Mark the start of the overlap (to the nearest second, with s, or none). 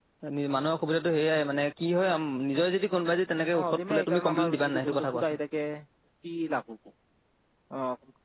4 s